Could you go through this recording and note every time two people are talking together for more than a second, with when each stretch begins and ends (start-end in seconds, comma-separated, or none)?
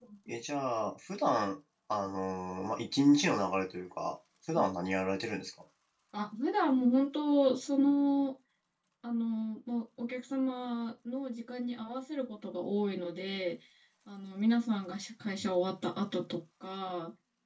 none